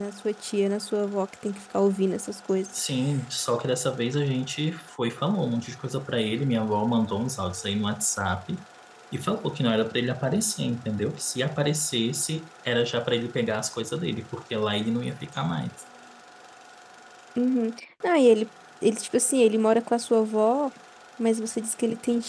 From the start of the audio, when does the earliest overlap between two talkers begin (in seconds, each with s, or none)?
none